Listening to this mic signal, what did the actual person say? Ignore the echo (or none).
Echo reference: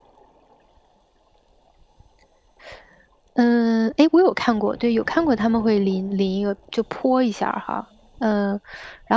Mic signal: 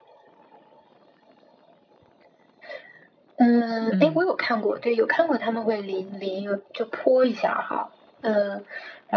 嗯